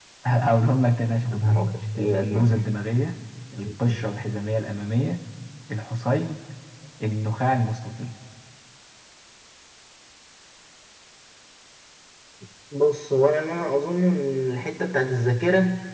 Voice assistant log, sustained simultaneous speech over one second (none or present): present